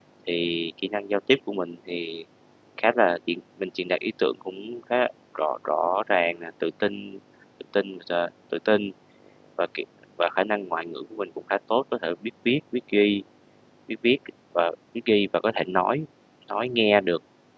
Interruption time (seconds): none

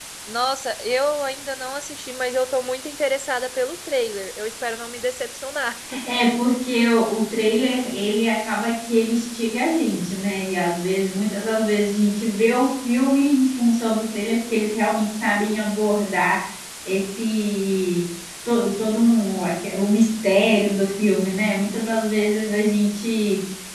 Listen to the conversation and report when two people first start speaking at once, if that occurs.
none

